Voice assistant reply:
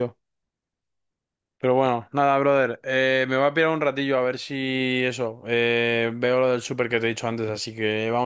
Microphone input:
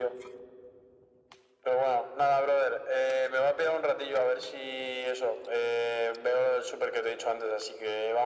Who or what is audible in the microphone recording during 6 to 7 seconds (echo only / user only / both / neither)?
echo only